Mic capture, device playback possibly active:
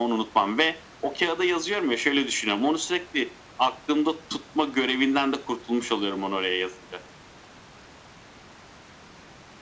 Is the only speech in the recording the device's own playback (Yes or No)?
Yes